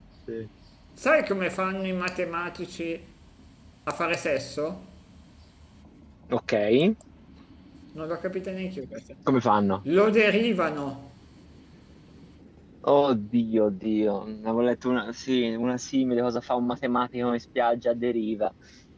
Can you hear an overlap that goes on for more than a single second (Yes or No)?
No